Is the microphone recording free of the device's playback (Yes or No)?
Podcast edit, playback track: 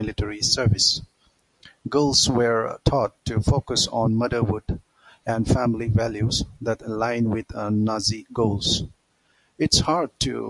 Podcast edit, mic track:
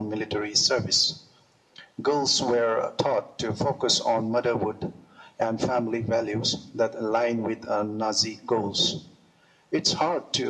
No